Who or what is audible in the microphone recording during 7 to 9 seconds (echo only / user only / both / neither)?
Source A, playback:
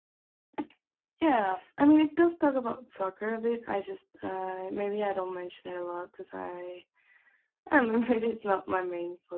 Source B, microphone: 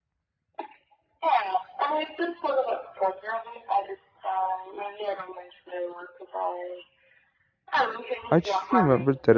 both